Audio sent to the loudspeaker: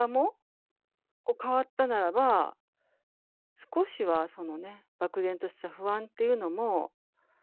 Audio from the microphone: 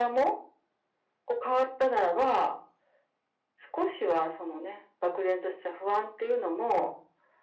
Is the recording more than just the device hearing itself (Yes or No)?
No